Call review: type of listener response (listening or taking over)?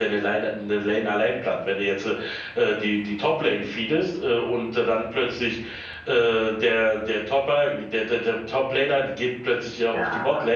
listening